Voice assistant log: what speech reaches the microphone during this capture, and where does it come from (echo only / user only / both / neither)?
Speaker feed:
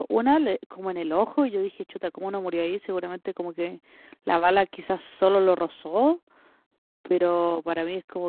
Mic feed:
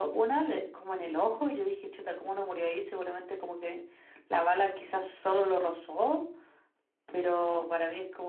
echo only